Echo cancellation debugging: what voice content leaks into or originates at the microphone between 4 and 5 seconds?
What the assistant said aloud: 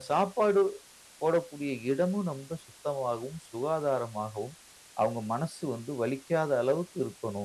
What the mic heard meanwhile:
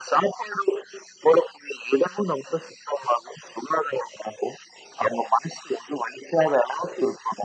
echo only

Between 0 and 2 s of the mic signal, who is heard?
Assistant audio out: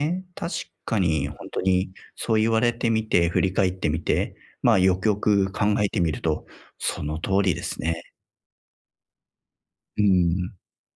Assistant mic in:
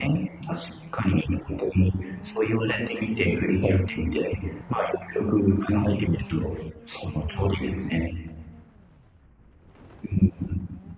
echo only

